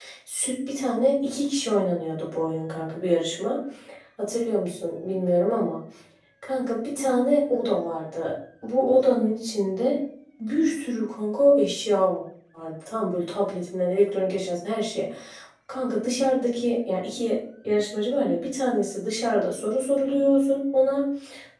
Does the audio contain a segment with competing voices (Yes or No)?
No